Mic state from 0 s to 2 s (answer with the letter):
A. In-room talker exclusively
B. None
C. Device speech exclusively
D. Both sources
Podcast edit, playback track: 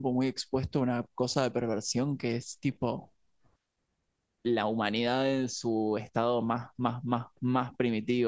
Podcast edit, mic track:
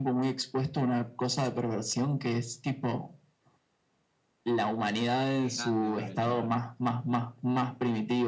C